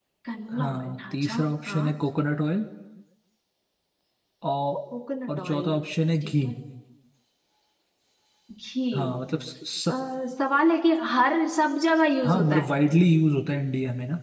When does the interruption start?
0.6 s

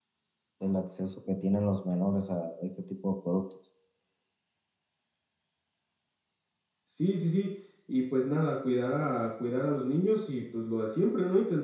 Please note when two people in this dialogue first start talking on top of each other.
none

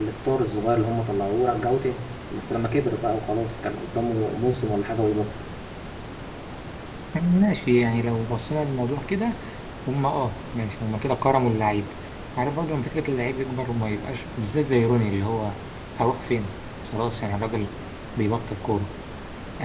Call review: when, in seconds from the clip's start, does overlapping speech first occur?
none

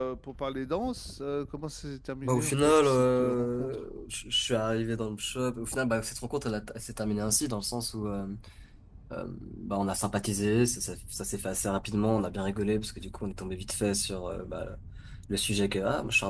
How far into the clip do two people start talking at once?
2.2 s

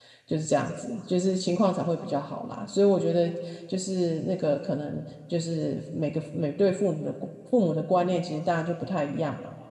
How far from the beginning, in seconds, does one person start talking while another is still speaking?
none

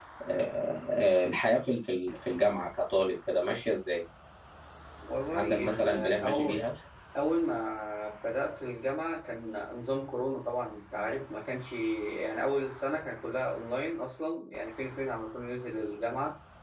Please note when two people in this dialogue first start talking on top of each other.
5.3 s

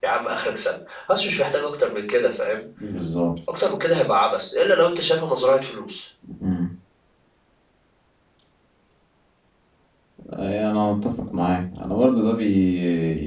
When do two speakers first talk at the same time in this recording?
none

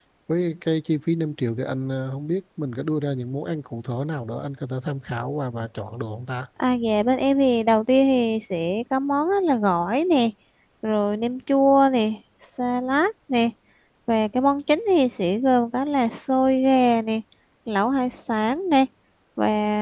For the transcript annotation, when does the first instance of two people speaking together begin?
none

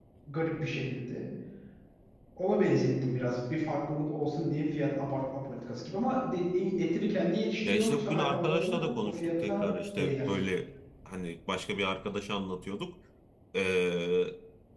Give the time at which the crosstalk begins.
7.7 s

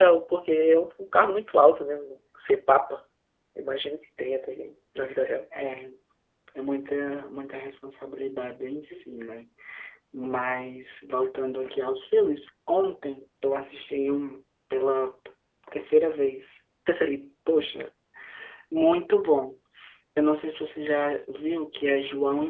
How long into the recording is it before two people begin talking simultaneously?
none

